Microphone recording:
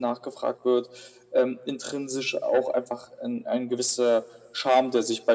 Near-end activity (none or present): none